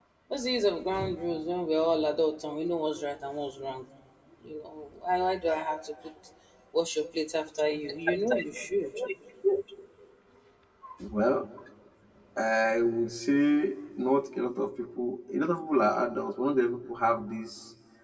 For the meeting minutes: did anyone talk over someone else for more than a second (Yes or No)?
No